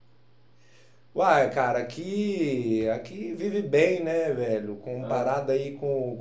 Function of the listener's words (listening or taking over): listening